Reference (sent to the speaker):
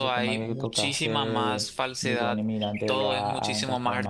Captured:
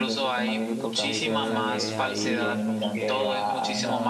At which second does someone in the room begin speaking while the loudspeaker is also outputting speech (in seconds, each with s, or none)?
1.0 s